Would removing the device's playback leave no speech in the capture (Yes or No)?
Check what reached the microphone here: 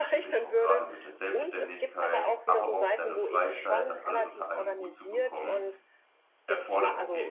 No